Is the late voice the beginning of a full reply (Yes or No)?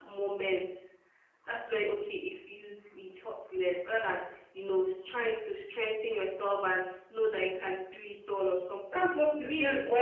Yes